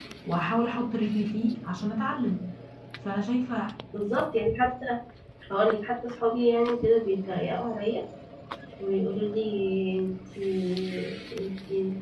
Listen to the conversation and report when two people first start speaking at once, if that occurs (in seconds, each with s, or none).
none